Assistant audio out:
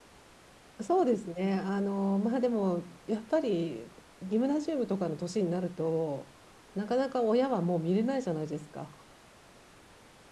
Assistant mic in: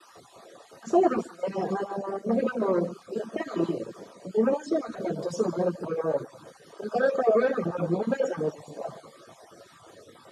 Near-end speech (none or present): none